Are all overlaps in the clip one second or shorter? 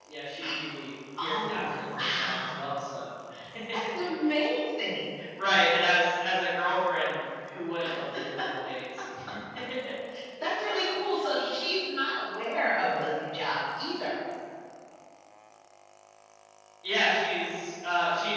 No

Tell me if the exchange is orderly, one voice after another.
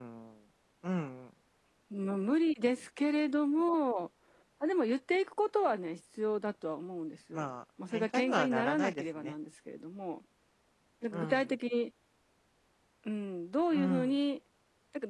No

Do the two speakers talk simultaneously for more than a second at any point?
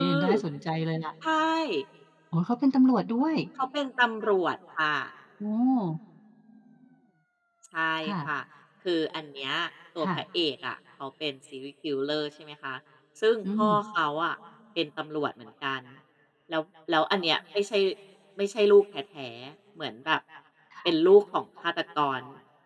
No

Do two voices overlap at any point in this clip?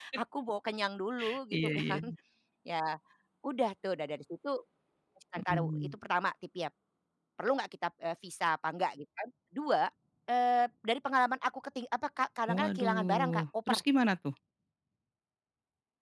Yes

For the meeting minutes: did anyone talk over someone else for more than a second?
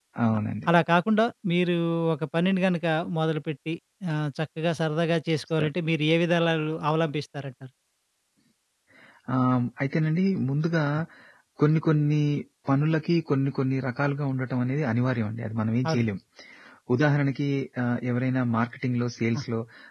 No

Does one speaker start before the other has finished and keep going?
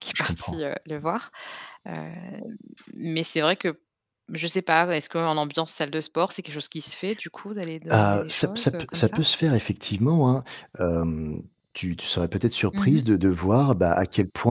Yes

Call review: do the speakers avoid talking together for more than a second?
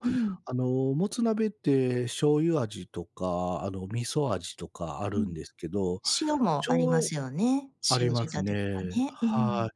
No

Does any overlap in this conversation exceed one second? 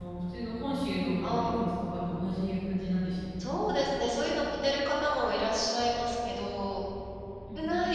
No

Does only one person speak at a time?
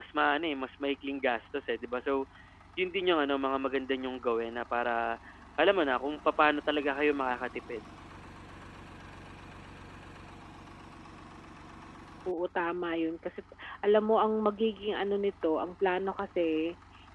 Yes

